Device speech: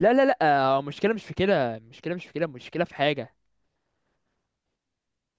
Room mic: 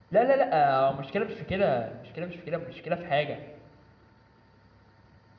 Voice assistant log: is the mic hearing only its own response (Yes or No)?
Yes